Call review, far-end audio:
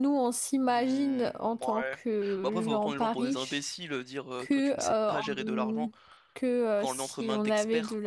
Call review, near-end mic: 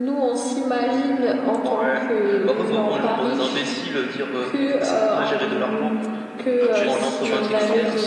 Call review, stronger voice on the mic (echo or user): echo